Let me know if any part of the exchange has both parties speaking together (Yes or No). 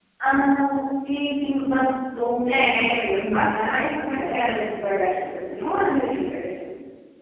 Yes